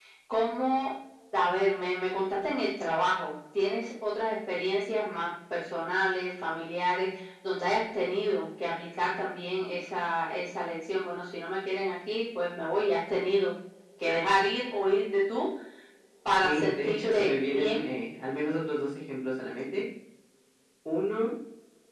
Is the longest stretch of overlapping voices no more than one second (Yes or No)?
No